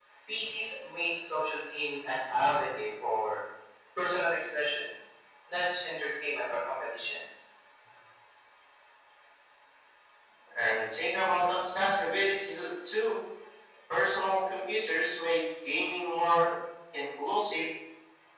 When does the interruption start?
none

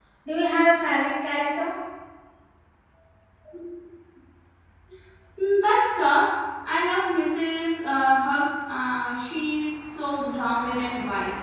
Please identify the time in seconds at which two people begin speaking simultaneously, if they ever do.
none

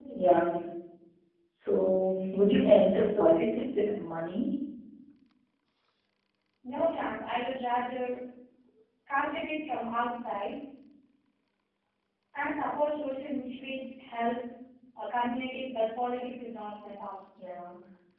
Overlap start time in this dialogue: none

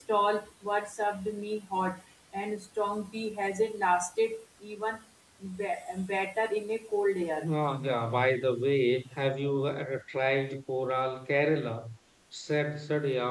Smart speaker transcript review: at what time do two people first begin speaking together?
none

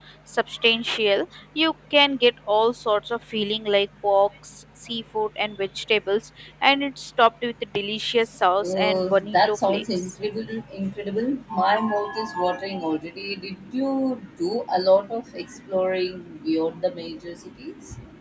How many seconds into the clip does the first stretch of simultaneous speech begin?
8.6 s

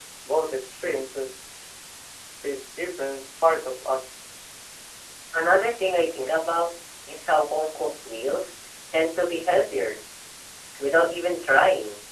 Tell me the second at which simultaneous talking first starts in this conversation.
none

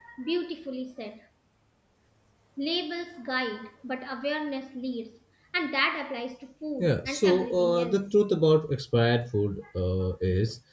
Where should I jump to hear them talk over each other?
6.8 s

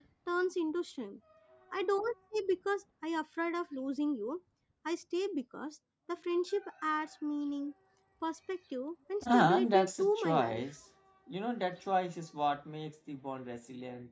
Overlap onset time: 9.2 s

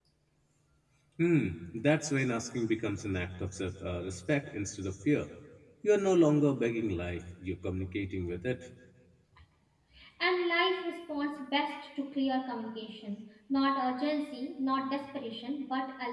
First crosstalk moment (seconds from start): none

